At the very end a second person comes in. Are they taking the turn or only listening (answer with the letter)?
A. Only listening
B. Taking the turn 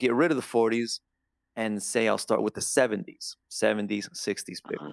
A